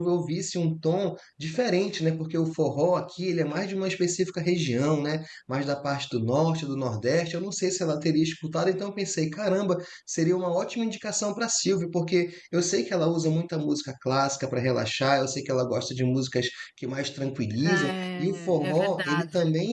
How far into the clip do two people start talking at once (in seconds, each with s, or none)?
17.5 s